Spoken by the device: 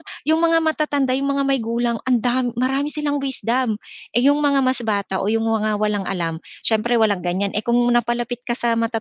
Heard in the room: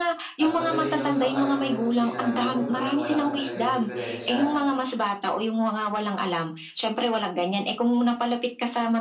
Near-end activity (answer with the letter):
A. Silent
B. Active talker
B